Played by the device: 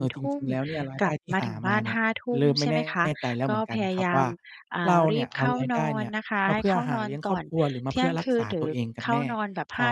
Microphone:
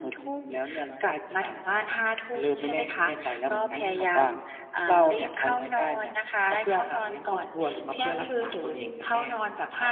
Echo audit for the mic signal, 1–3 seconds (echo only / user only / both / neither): echo only